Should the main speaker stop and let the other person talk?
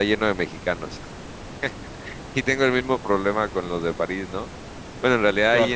No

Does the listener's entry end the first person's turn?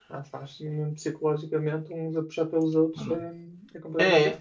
Yes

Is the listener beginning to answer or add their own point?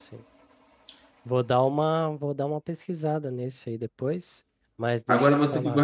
Yes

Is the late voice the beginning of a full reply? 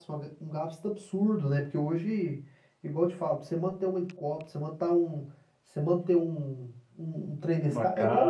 No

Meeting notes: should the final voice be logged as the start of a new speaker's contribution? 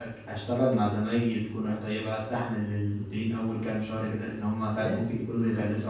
No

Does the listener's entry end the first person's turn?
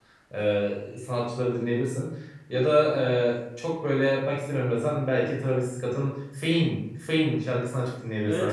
Yes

